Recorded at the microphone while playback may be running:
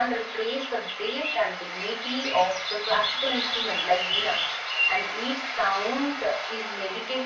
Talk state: echo only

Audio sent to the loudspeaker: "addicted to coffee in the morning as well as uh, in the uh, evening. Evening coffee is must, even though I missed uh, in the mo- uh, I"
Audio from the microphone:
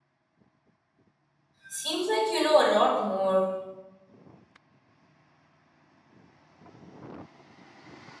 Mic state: user only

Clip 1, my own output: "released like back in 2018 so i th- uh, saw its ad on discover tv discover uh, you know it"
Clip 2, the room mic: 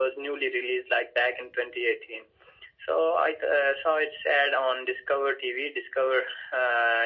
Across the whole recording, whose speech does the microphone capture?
echo only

